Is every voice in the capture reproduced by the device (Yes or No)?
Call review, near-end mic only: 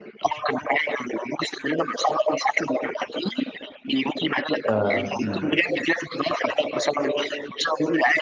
No